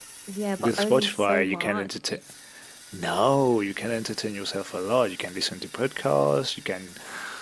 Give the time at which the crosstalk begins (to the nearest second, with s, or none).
1 s